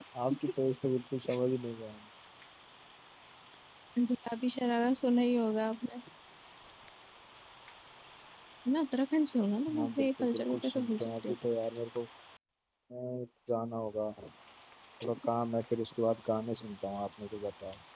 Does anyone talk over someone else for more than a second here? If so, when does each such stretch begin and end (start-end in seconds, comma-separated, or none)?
9.8-11.4